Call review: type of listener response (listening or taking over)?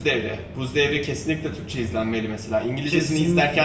taking over